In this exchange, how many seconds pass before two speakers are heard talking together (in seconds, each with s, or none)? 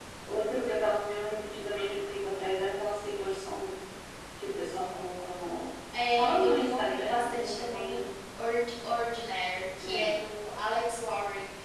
6.2 s